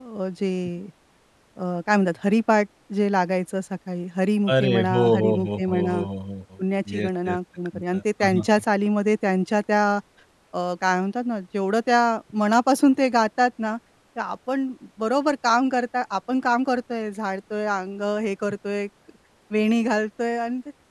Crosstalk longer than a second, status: present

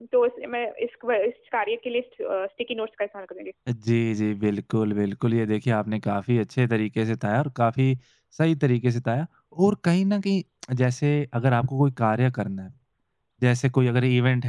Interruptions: none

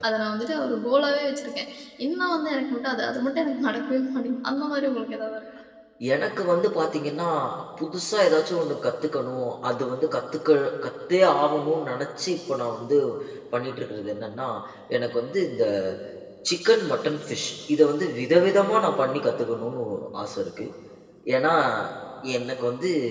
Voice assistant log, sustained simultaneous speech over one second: none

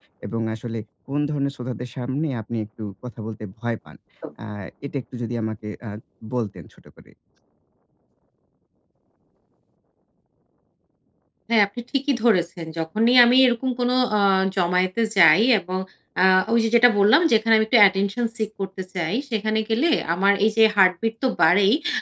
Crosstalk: none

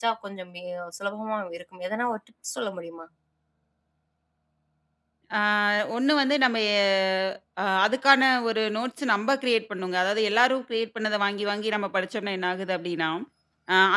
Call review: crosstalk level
none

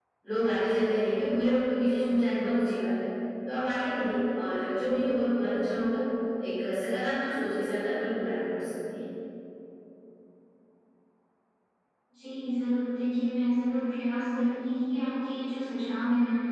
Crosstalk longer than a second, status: none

